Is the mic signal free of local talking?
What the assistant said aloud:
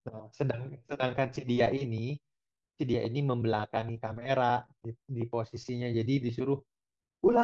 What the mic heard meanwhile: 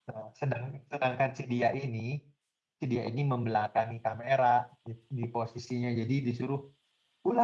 Yes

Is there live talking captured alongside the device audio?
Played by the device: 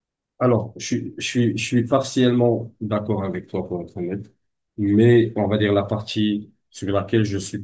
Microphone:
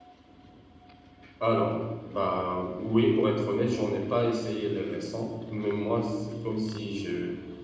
Yes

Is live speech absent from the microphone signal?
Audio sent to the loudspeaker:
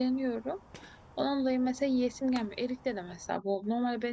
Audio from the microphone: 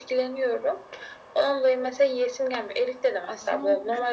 No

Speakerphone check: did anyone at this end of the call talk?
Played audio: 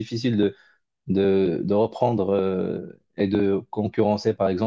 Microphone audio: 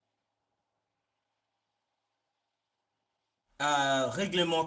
Yes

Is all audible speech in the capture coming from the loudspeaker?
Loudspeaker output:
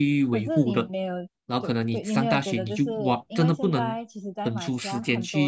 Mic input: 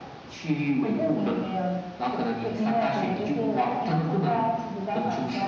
Yes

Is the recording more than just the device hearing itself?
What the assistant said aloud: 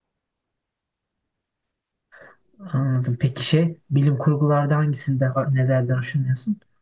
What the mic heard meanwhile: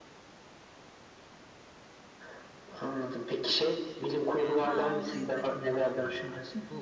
Yes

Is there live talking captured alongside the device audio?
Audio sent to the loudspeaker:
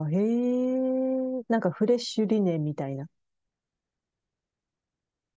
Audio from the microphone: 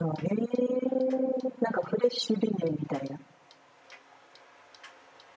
No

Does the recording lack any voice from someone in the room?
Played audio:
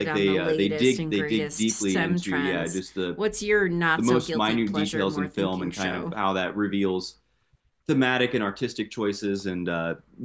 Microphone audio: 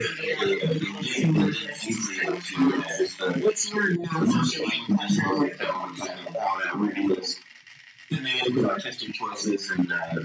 Yes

